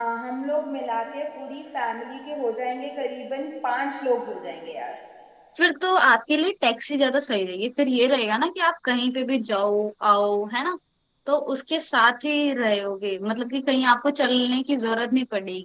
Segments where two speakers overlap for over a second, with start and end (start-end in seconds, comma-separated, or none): none